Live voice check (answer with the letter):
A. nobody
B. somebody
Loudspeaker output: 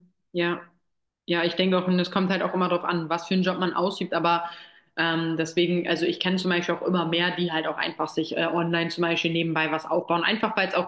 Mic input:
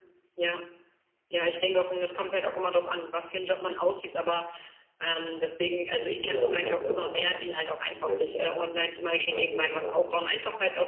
B